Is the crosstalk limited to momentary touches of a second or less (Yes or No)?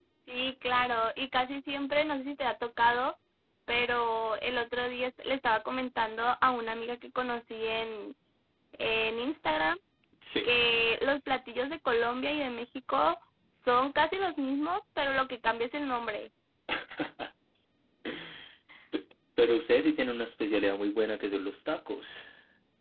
Yes